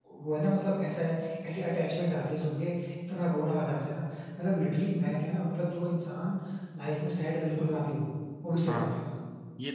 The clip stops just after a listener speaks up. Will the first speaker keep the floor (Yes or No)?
No